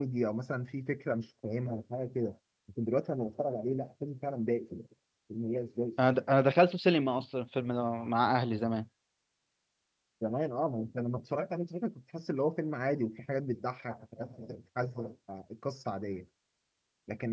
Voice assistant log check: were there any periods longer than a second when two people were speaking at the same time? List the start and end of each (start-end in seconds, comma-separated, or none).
none